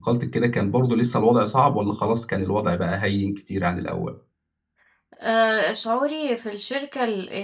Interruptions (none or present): none